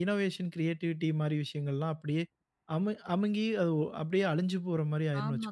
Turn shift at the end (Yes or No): Yes